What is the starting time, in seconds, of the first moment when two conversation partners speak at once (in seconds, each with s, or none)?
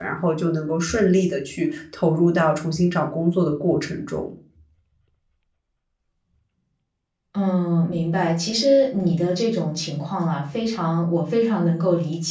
none